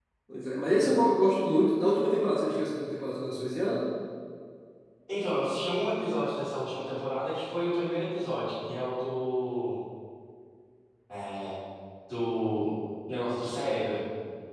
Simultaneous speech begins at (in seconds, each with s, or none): none